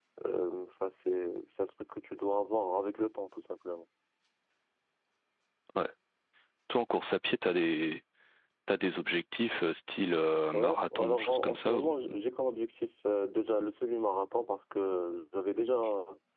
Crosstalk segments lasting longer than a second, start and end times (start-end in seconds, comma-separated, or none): 10.5-11.9